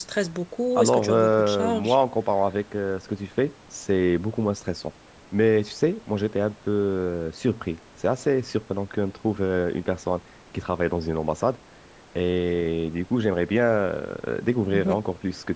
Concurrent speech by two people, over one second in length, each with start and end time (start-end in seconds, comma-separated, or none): 0.8-2.0